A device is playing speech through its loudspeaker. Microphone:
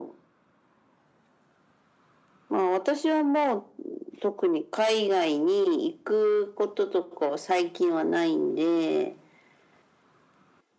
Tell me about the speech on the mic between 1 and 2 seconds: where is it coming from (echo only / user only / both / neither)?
neither